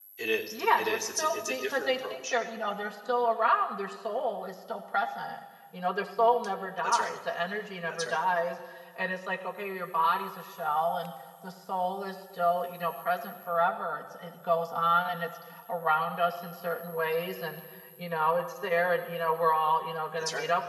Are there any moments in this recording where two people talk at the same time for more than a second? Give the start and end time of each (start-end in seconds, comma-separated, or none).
0.5-2.4